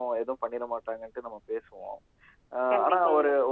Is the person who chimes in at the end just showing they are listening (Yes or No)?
Yes